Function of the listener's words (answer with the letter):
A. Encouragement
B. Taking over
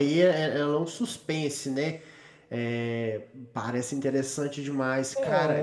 B